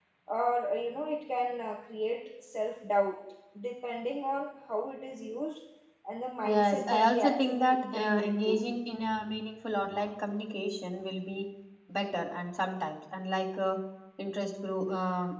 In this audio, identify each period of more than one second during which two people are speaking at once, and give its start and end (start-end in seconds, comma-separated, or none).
6.5-8.6